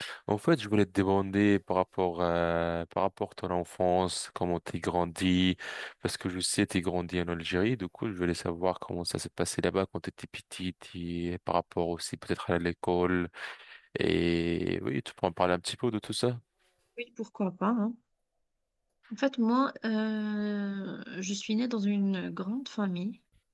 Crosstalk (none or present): none